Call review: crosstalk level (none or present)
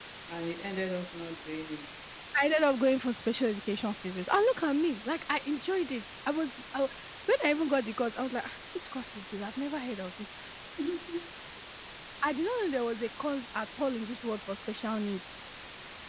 none